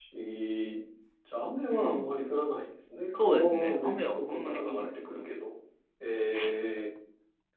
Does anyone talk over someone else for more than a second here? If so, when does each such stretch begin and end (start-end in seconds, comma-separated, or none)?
3.1-5.3